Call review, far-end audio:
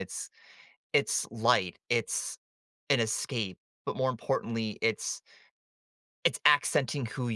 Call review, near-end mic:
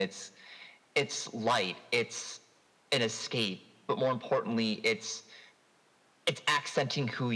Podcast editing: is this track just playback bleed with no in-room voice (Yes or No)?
Yes